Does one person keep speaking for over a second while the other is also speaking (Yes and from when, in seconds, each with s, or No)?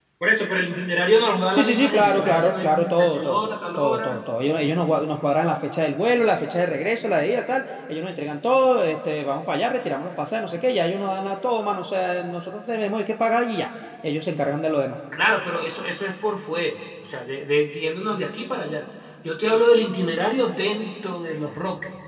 Yes, from 1.5 s